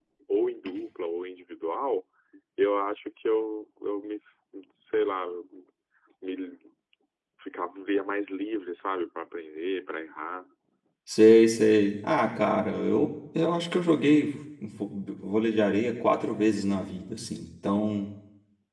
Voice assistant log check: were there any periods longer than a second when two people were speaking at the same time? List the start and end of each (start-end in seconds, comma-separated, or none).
none